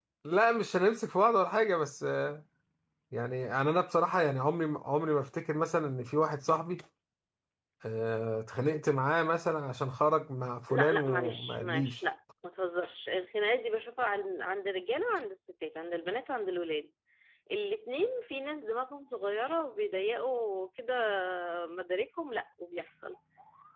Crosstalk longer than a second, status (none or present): present